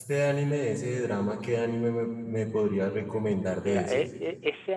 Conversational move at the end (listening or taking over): taking over